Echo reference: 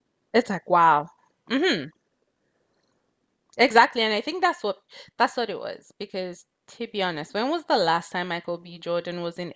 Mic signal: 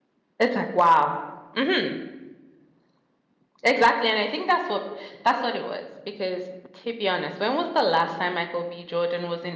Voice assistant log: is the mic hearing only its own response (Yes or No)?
Yes